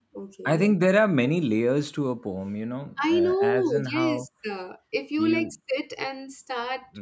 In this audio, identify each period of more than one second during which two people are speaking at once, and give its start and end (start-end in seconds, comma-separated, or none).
3.0-4.3